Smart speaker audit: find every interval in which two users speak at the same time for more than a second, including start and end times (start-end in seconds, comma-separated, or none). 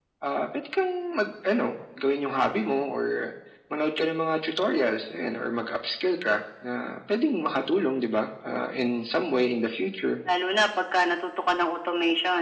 none